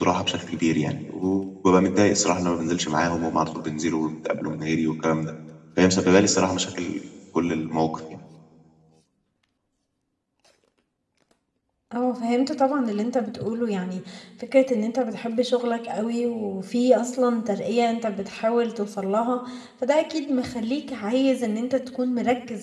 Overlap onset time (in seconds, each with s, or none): none